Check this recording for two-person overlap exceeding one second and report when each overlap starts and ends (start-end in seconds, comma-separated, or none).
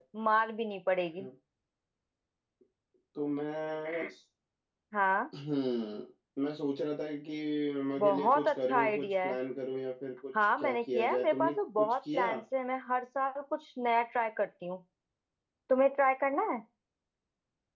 8.0-9.4, 10.6-12.3